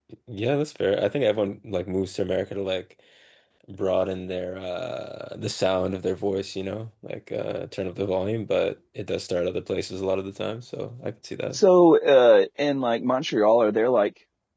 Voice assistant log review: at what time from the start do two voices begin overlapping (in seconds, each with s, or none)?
none